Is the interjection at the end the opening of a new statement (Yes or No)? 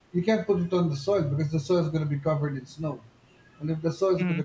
No